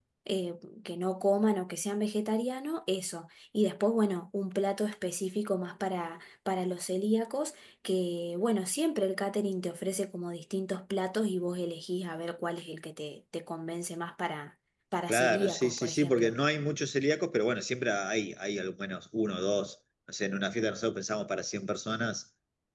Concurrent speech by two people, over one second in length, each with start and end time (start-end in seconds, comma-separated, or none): 15.1-16.3